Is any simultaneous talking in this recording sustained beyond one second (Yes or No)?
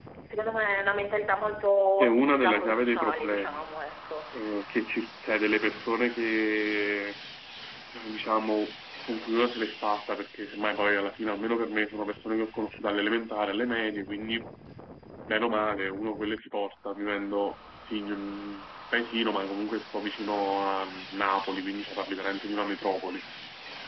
Yes